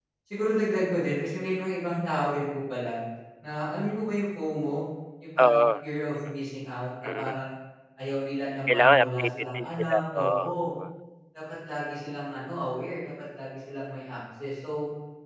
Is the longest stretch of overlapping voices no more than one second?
No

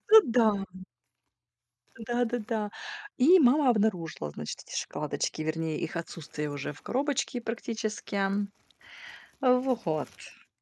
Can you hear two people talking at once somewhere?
No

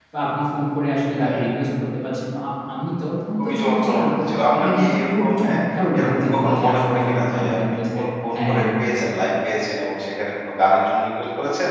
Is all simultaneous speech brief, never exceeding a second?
No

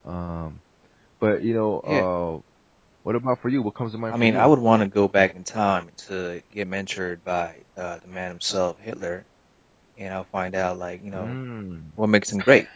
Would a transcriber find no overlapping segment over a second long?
Yes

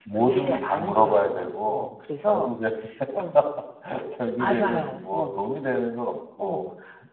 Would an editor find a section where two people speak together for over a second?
Yes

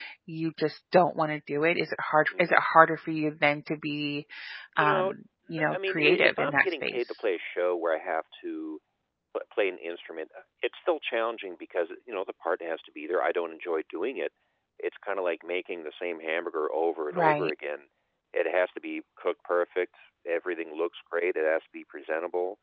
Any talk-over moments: Yes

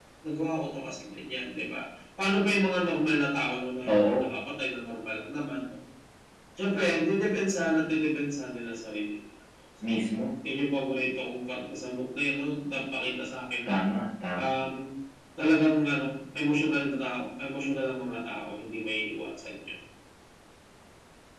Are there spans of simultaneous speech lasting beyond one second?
No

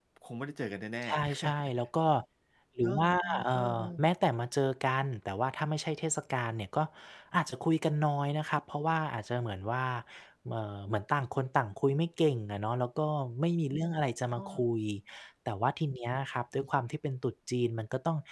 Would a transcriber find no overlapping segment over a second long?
No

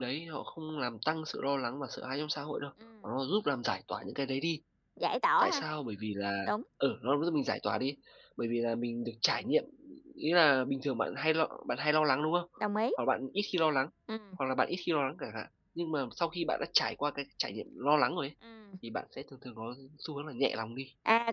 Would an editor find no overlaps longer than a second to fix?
Yes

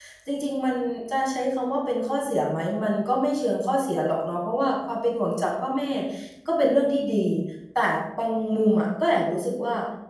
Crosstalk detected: No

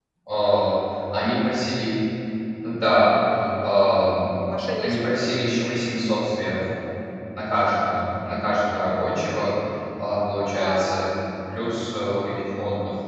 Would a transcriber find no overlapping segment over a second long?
Yes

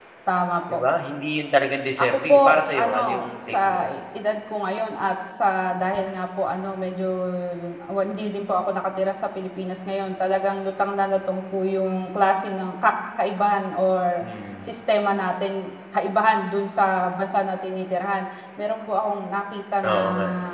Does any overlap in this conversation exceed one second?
Yes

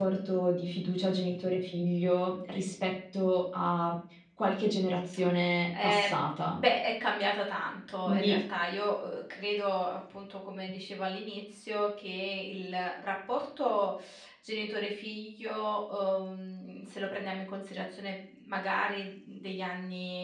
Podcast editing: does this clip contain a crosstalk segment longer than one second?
No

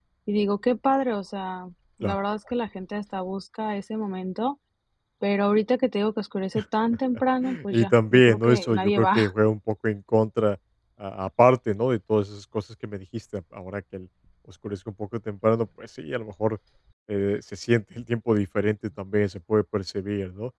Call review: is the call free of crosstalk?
No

